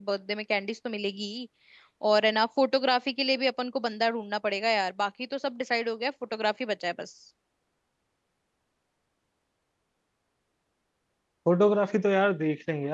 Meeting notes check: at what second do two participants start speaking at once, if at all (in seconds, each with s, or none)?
none